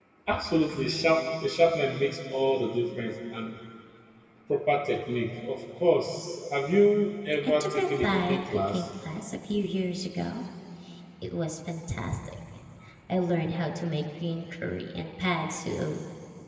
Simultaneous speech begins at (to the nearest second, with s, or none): 7 s